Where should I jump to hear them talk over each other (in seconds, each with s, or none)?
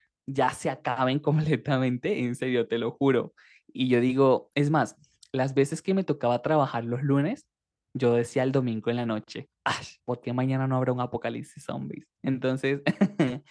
none